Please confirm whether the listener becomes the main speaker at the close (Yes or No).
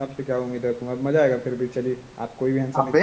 Yes